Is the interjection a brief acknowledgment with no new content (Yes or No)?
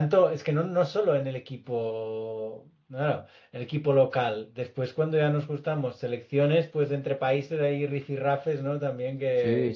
No